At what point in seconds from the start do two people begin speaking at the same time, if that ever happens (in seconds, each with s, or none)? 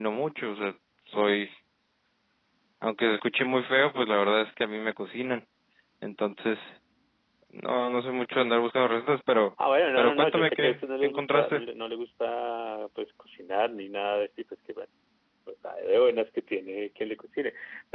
10.0 s